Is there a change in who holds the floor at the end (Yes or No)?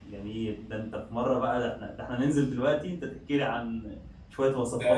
Yes